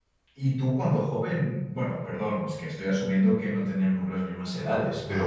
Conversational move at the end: listening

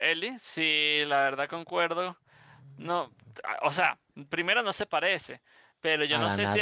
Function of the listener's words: listening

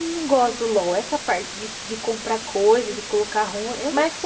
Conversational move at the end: taking over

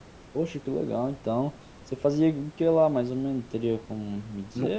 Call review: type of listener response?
taking over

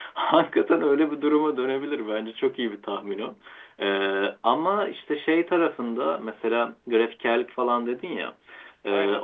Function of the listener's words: listening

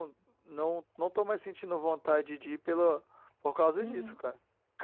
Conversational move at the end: taking over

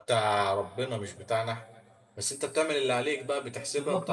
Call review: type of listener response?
taking over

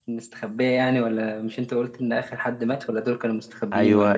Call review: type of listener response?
taking over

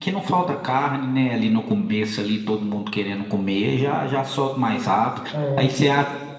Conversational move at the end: listening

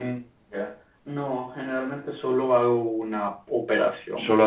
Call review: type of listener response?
taking over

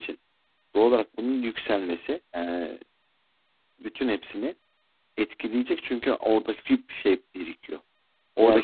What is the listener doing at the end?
taking over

